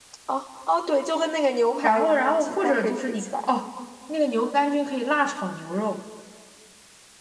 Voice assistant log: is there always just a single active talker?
No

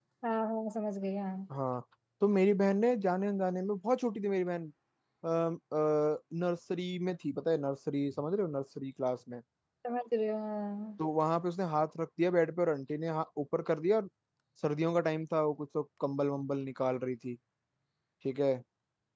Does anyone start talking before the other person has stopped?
No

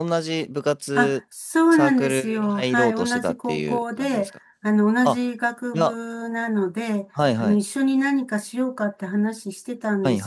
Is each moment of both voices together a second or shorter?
No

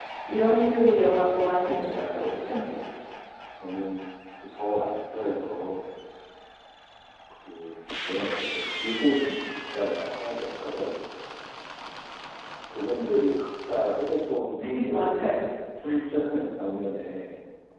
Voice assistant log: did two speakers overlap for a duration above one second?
Yes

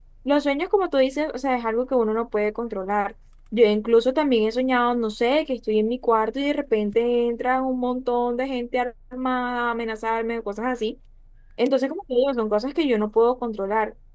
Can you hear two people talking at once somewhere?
No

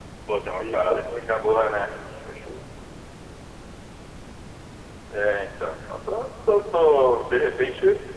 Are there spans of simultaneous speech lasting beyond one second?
Yes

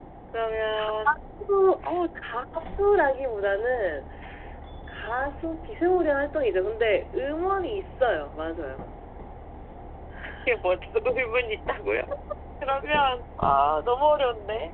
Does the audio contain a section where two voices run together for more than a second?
No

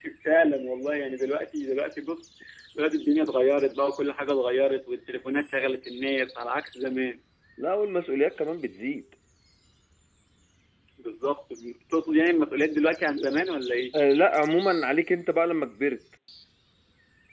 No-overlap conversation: Yes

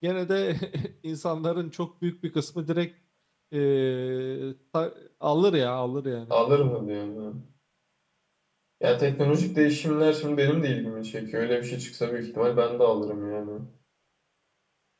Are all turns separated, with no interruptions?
Yes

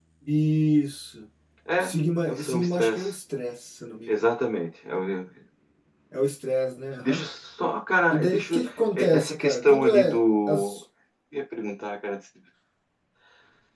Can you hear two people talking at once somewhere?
Yes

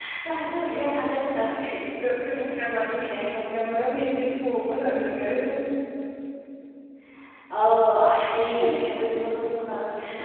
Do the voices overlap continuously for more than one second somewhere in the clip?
No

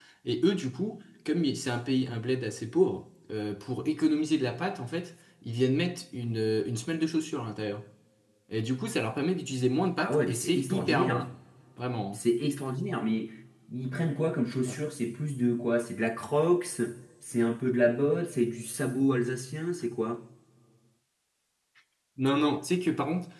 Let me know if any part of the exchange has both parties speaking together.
Yes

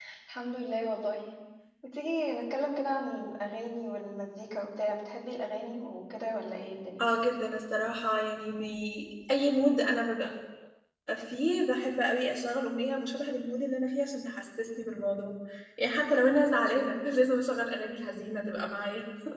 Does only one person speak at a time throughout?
Yes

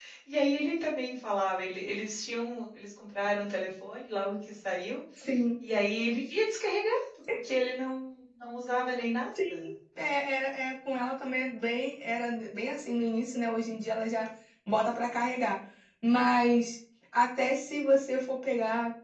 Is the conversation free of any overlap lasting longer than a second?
Yes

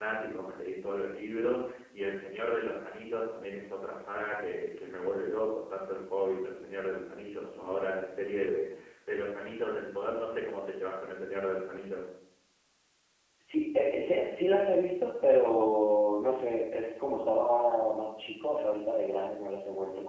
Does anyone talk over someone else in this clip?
No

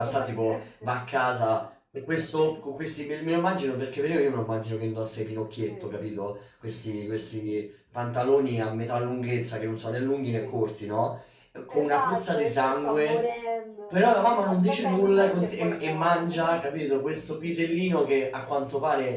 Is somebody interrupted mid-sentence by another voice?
Yes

